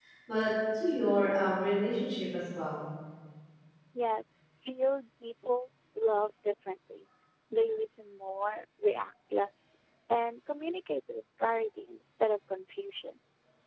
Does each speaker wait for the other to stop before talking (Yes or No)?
Yes